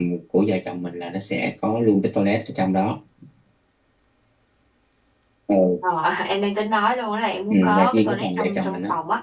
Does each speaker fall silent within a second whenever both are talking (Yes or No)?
No